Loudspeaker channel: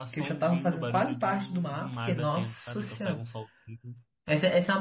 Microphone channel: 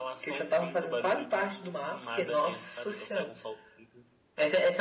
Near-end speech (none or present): none